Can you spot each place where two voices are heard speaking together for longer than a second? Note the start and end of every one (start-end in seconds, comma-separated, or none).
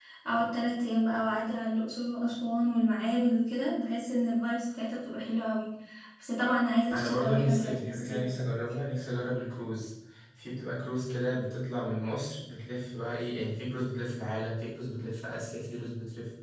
6.9-8.2